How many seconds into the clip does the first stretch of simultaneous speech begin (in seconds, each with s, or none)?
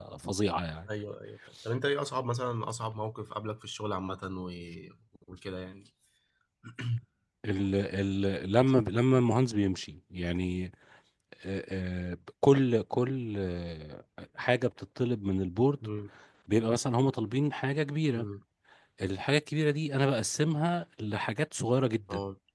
none